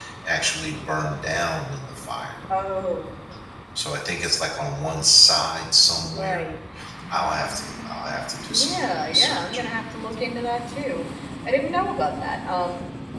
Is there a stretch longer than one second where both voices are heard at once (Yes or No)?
Yes